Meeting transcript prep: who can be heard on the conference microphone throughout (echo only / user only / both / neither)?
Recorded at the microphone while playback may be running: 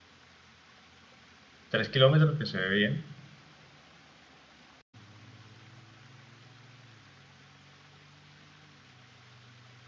user only